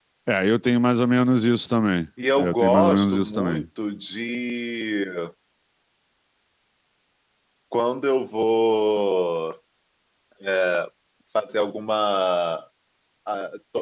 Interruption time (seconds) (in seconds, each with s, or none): 2.2 s